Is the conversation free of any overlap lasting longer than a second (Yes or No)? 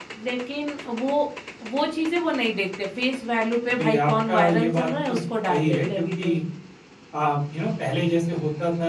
No